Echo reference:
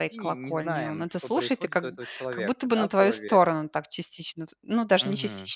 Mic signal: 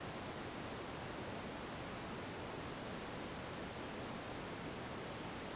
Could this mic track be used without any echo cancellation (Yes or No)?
Yes